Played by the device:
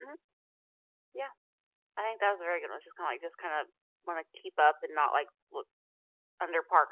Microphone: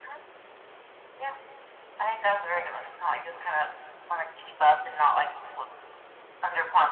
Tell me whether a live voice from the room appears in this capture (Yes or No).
No